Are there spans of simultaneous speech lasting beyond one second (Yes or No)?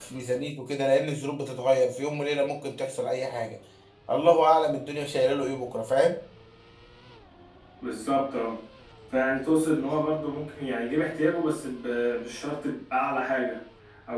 No